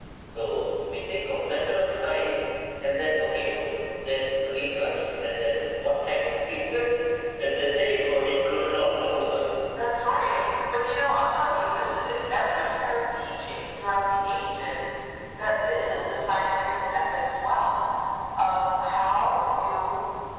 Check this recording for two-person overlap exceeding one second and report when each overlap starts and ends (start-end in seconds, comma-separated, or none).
none